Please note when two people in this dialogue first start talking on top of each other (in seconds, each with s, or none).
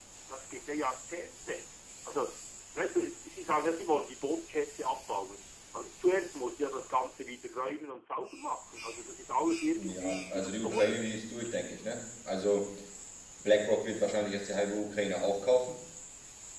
9.8 s